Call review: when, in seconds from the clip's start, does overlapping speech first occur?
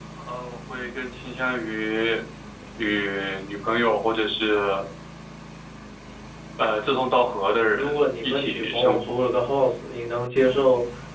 7.8 s

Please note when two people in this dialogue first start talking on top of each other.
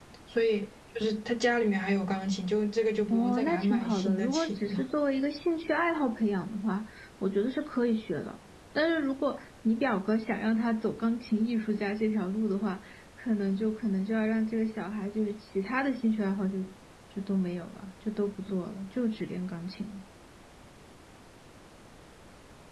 3.1 s

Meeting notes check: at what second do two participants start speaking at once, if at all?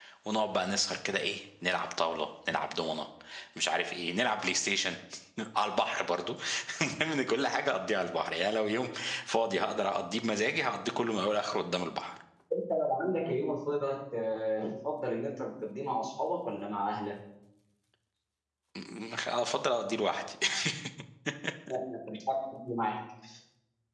none

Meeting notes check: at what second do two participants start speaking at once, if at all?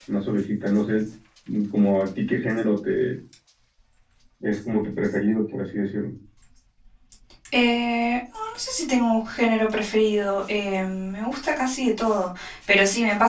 none

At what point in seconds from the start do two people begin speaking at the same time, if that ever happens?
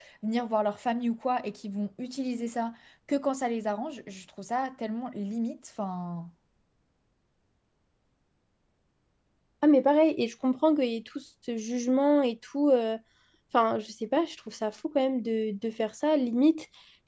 none

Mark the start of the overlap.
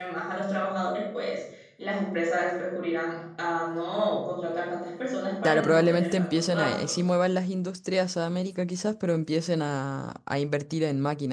5.4 s

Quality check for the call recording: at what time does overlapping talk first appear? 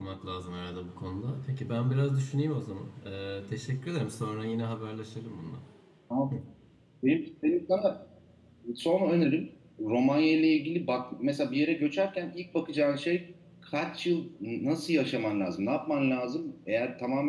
none

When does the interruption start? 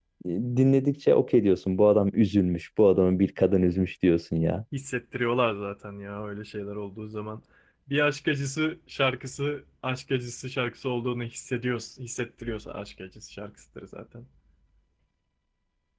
none

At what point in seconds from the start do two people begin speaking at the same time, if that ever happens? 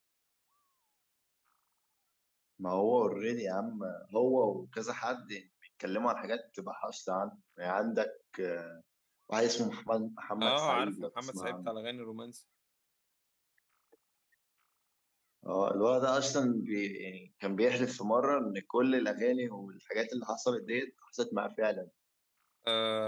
10.4 s

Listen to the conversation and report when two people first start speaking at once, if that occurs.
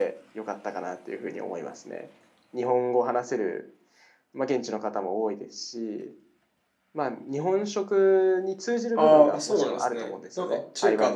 9.0 s

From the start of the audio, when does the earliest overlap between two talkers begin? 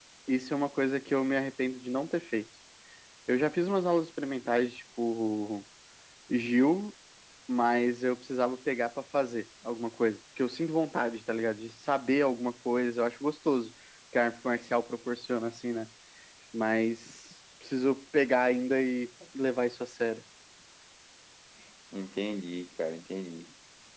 none

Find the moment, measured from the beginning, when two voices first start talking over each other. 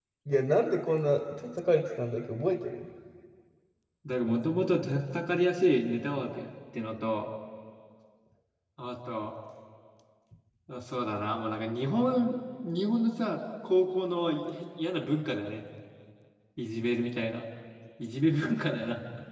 none

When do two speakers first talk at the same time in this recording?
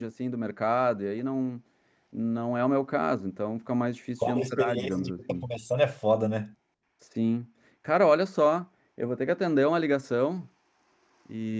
4.2 s

